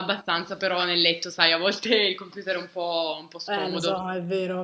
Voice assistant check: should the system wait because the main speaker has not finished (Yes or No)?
No